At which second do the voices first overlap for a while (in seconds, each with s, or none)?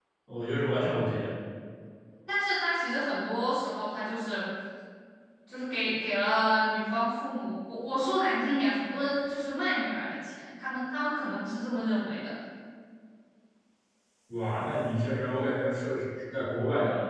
none